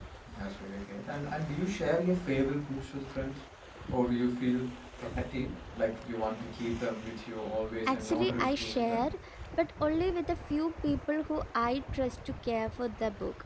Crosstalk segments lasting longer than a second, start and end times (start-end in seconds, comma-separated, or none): 7.8-9.1